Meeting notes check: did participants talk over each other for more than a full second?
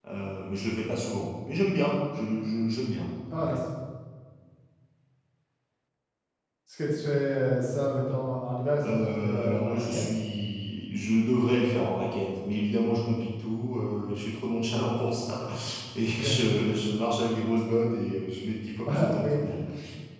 Yes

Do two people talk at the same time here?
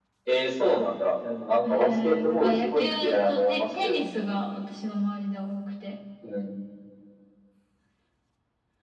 Yes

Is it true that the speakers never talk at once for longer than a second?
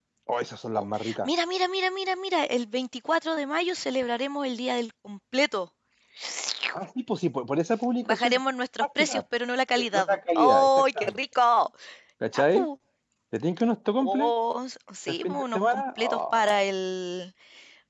No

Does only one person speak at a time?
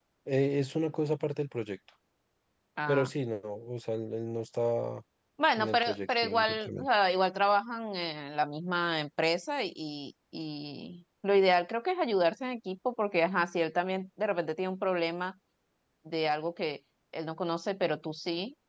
No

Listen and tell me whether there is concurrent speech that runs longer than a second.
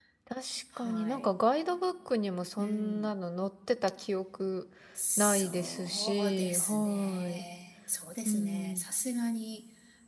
Yes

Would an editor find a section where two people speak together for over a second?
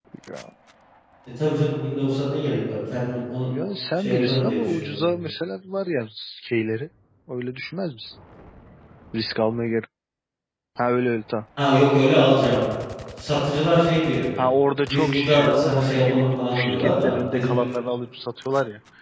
Yes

